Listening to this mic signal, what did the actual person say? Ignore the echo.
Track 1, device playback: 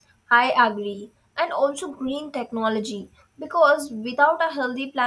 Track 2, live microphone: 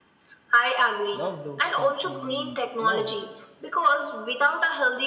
love those can be love.

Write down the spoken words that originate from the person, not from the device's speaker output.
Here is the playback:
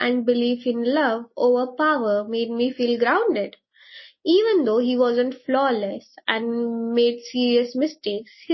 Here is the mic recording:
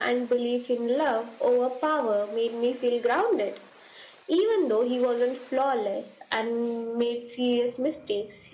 none

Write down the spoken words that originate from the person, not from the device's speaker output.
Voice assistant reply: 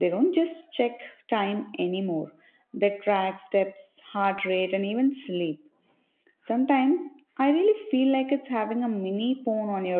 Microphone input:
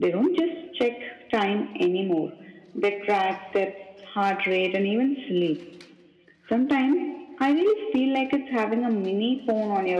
none

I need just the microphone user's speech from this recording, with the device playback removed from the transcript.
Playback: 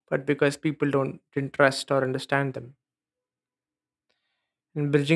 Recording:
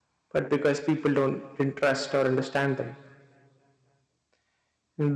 none

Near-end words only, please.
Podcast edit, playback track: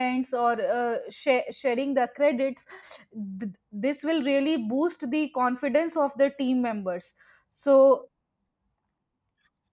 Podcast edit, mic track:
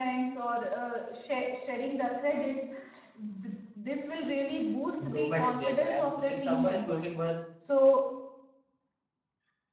improvement in themselves. If someone is working well,

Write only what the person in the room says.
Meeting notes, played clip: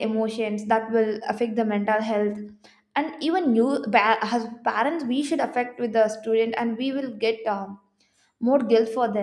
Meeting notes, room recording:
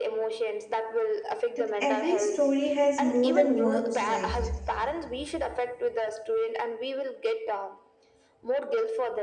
that every story has more than one side.

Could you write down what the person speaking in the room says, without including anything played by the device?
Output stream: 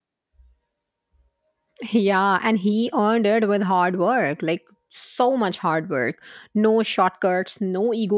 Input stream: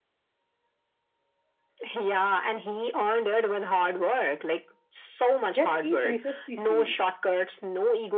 Yet he finishes the scene.

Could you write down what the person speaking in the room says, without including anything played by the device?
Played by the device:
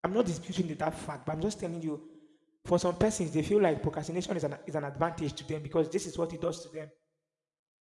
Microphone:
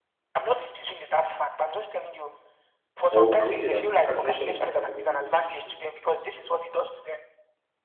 Or can we say that procrastination is not part of everybody's journey?

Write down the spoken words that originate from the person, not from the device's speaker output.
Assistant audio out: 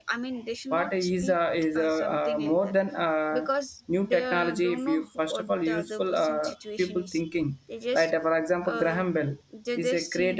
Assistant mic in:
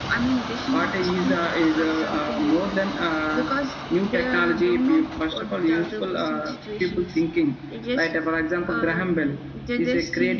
none

